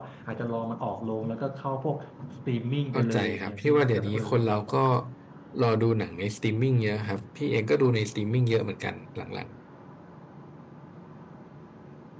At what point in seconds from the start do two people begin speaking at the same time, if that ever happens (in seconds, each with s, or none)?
2.9 s